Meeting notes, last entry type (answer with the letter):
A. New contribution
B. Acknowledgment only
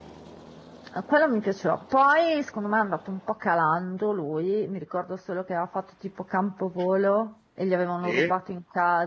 B